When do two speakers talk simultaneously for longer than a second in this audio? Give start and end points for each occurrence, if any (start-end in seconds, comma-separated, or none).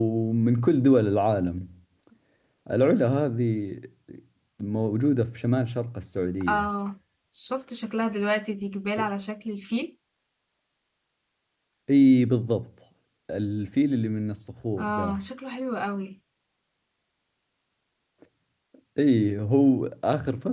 none